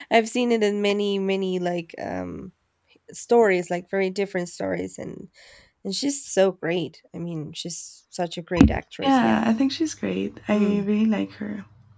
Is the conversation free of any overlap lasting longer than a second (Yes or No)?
Yes